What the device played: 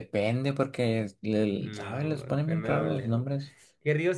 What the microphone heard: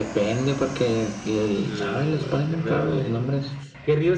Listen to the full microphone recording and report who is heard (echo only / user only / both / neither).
echo only